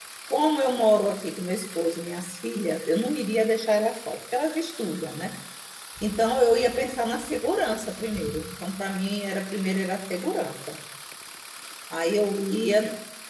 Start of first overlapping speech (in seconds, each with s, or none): none